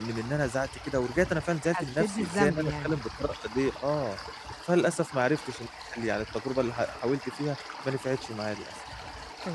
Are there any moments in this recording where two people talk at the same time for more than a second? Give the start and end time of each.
1.6-2.9

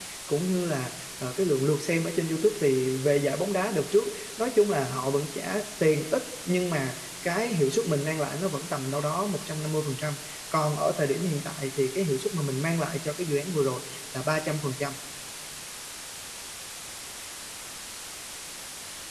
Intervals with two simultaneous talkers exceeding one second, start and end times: none

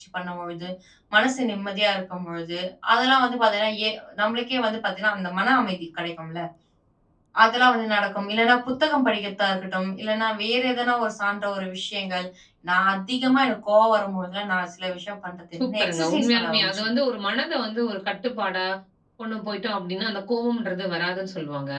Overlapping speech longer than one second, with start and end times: 15.6-16.9

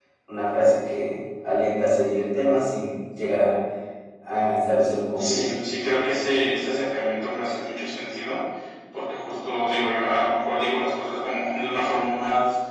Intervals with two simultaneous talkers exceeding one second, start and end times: none

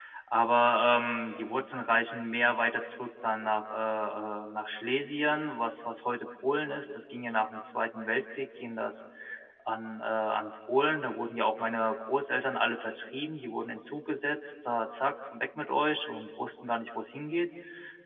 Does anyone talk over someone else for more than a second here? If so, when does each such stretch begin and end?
none

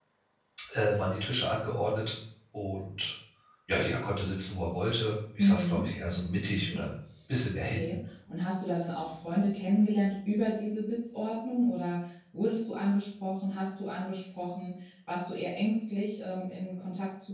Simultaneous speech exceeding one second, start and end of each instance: 5.4-6.8

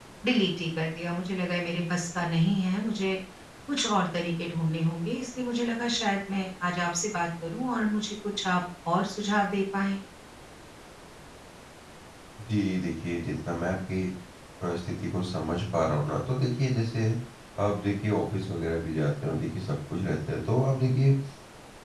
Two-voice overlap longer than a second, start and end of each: none

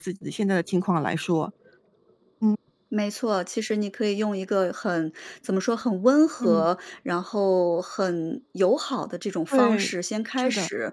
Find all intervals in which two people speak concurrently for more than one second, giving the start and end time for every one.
none

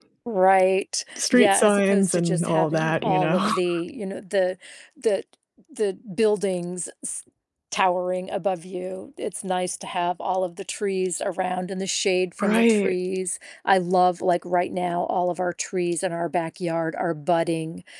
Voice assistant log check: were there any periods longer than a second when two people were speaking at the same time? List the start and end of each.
1.2-3.5

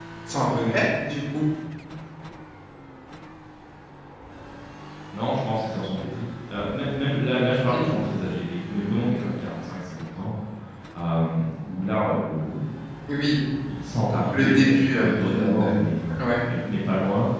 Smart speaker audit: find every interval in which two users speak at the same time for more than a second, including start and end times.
14.3-15.8

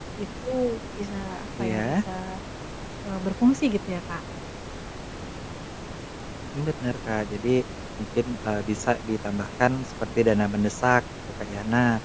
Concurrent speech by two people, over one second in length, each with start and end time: none

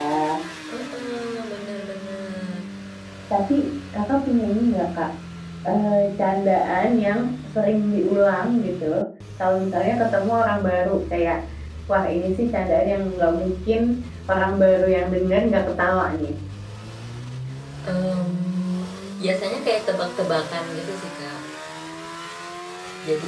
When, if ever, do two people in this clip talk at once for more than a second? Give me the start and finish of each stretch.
none

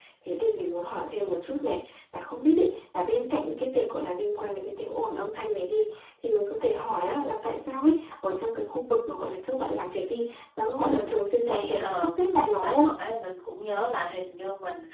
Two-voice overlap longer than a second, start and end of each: 11.4-12.9

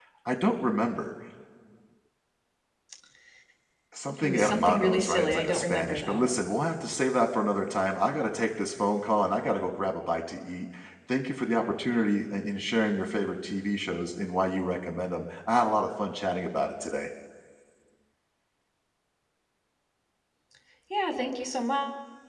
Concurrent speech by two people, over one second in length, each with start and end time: 4.2-6.3

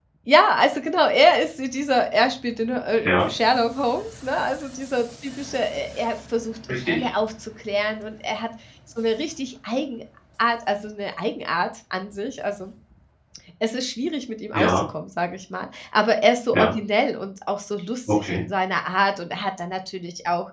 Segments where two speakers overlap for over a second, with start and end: none

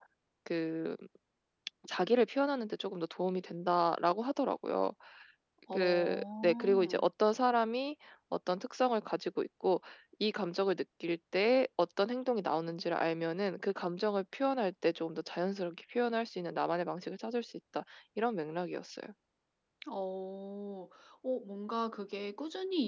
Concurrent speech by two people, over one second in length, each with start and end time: 5.7-7.0

